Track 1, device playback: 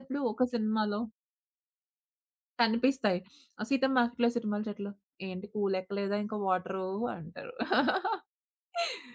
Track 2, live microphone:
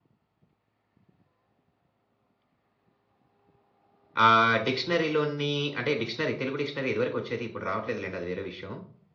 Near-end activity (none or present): present